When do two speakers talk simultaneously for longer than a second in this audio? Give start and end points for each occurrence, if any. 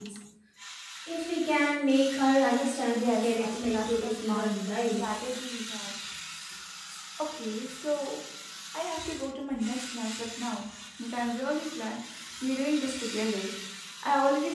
2.9-4.5

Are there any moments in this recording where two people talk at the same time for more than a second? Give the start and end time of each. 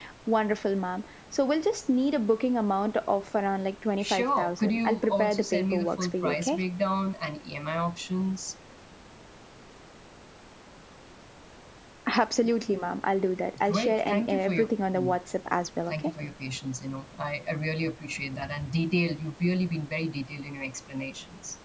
4.0-6.6, 13.7-15.2

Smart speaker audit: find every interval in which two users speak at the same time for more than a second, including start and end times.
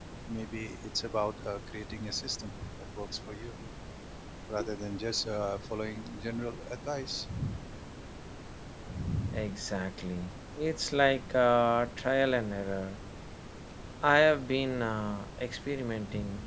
none

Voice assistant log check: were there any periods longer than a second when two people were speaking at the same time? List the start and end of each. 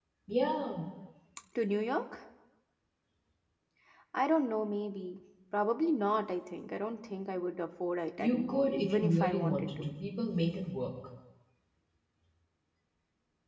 8.2-9.9

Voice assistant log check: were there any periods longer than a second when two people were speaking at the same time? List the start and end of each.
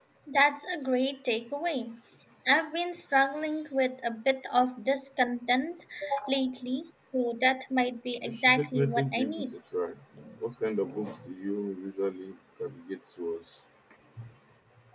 8.2-9.5

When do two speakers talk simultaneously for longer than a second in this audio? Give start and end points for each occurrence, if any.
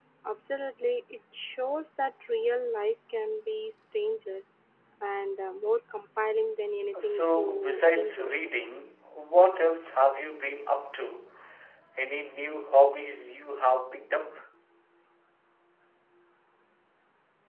7.0-8.3

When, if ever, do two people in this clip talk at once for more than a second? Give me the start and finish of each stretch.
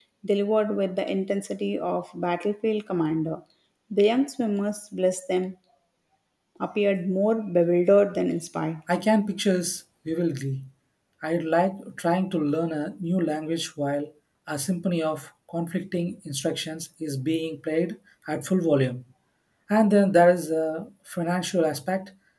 none

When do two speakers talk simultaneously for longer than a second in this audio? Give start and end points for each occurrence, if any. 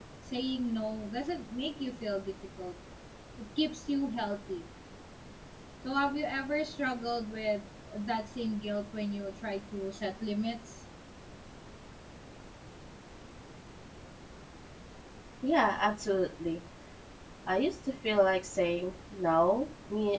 none

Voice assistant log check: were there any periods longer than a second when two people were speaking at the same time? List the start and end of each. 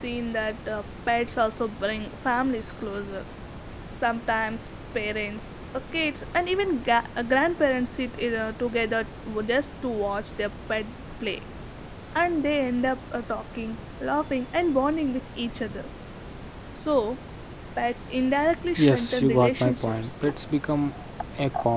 18.8-20.4

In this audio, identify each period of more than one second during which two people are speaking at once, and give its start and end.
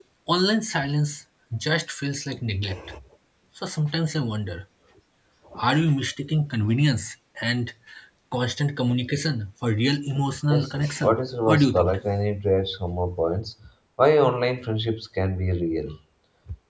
10.5-12.0

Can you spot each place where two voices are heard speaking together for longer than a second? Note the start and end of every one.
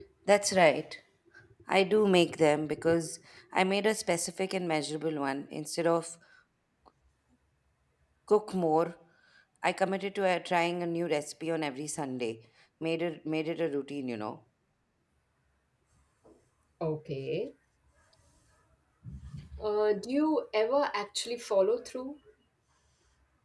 none

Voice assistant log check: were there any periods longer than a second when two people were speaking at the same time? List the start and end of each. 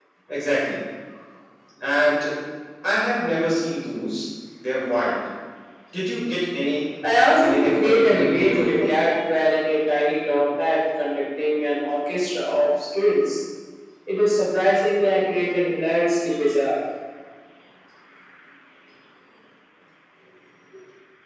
7.4-8.9

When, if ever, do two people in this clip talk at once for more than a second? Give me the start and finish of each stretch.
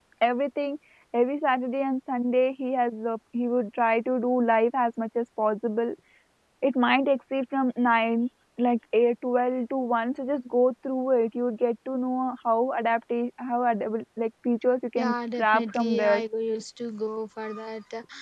15.0-16.2

